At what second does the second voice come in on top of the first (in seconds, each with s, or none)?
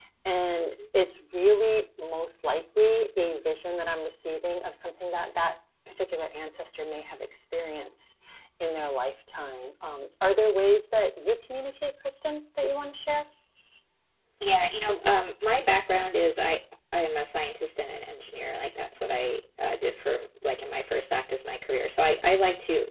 none